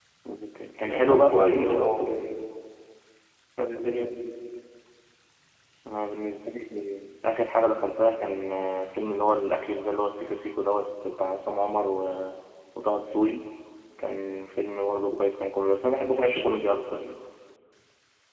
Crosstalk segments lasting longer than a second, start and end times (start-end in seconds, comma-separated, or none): 0.8-2.1